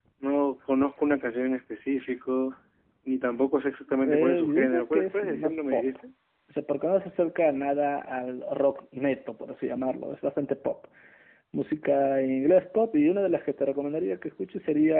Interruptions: present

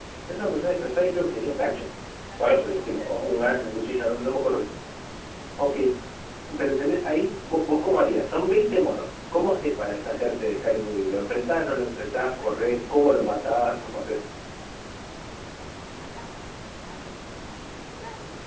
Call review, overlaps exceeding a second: present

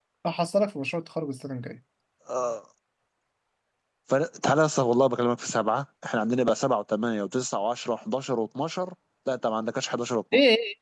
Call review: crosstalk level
none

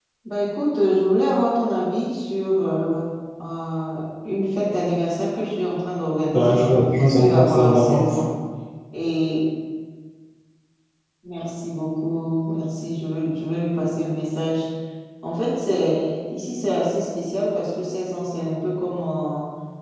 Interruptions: present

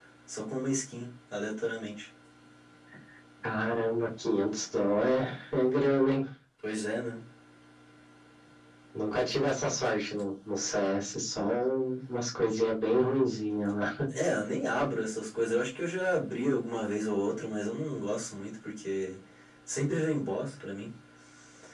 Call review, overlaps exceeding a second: none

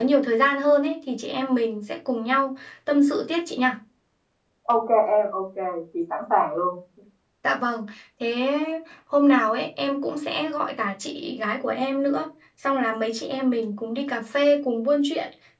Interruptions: none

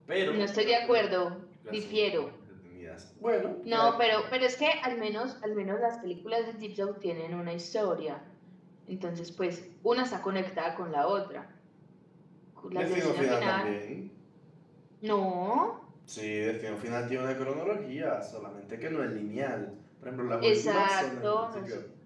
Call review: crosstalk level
present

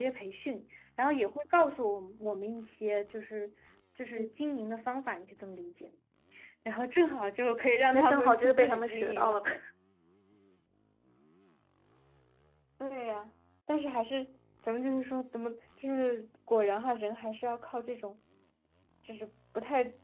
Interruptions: present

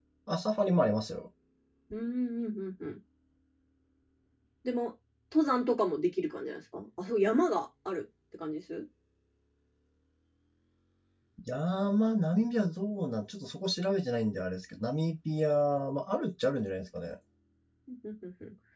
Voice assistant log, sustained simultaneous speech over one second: none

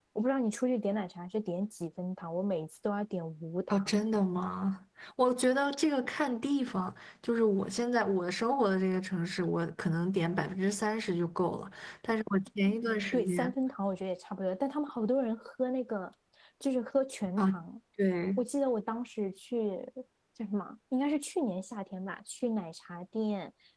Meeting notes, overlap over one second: none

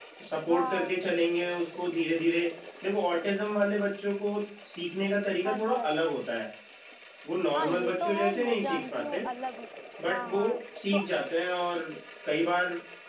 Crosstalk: present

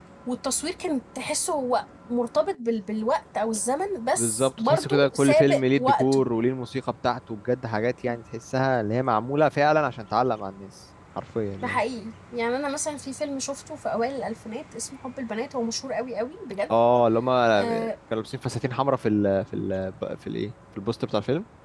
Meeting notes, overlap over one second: present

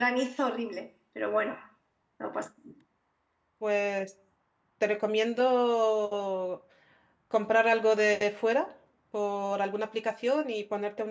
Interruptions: none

